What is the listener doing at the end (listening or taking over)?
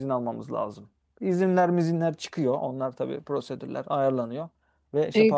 taking over